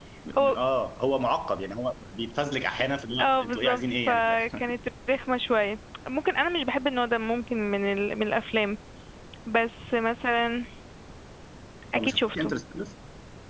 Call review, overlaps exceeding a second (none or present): present